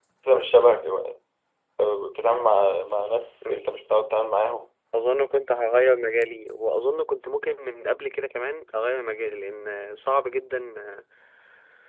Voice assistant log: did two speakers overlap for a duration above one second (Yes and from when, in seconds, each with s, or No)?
No